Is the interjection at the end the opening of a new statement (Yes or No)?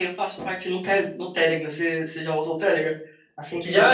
No